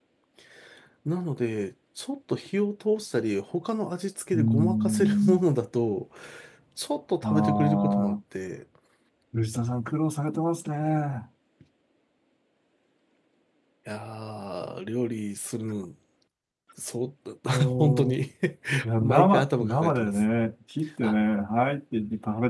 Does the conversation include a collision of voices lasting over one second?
Yes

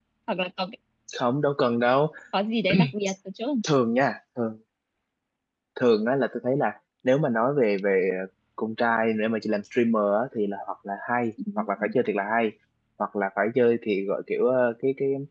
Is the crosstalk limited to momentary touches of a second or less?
Yes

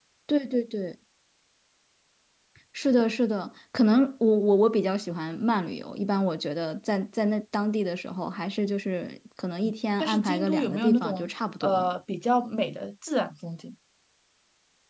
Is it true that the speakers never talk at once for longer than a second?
No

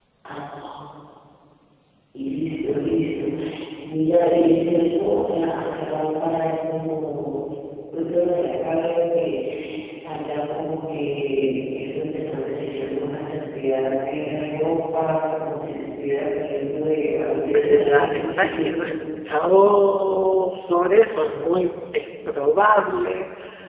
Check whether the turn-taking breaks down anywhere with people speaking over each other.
Yes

